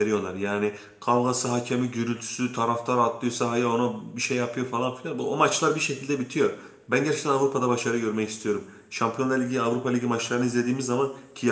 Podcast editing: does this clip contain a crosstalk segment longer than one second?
No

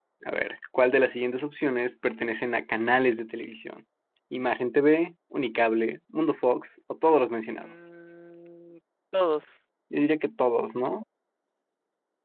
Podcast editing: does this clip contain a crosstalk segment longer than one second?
No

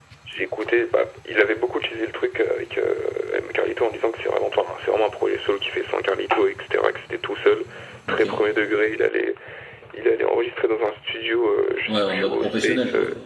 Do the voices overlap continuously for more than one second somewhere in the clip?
Yes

